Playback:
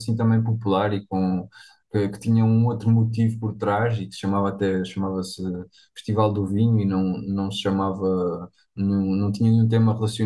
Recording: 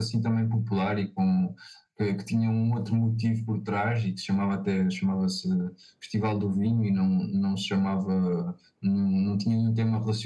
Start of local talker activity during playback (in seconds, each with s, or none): none